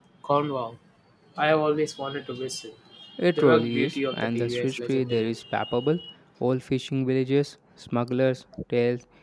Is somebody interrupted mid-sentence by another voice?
Yes, from 3.4 s

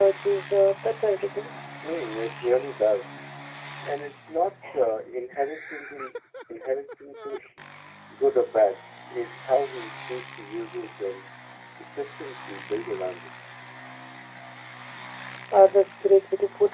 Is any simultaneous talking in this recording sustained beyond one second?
No

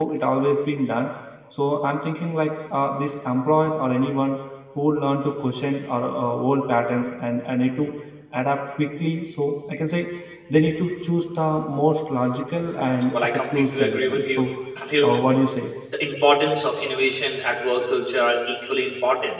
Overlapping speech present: Yes, from 13.1 s

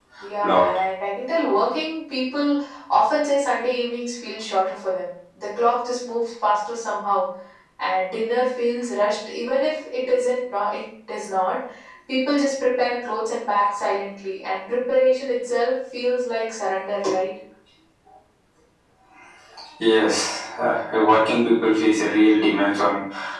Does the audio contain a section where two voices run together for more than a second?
No

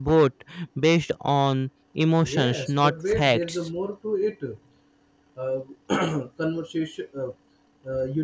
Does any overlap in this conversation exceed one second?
Yes, from 2.2 s

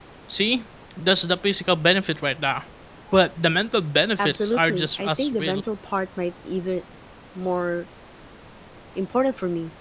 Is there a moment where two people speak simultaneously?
Yes, from 4.2 s

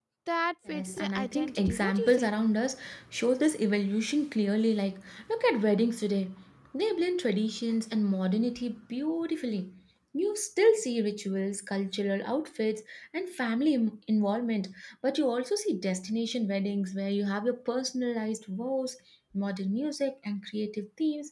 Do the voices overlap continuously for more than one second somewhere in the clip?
Yes, from 0.7 s

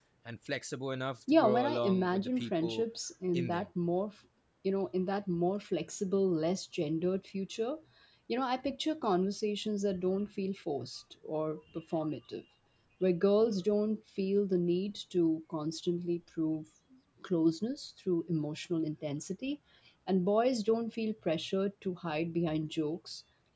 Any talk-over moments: Yes, from 1.4 s

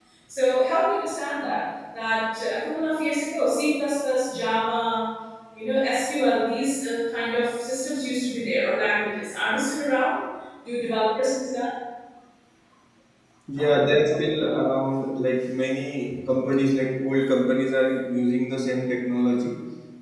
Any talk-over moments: No

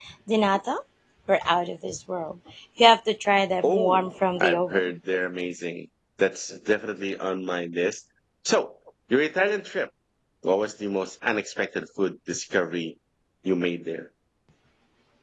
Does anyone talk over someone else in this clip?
Yes, from 3.6 s

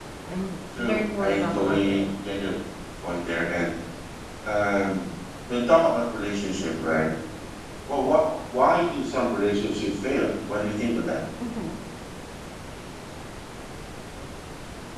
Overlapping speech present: Yes, from 0.8 s

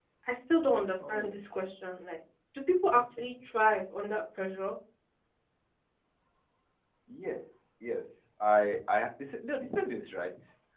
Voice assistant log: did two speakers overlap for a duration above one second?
No

